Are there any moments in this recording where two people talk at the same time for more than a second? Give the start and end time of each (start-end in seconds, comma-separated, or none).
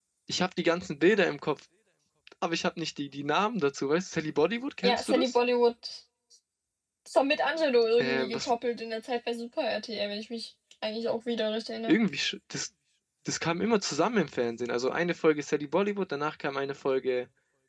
none